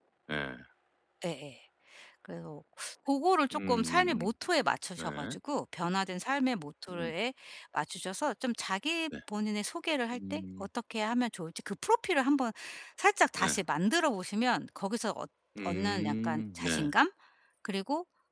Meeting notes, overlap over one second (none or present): present